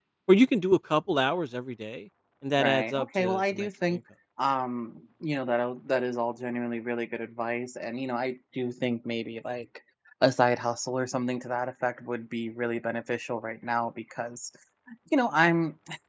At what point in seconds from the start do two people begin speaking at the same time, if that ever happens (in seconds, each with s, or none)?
2.6 s